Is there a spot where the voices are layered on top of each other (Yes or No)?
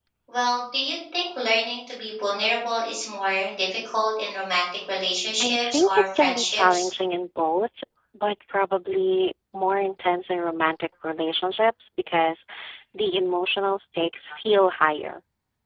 Yes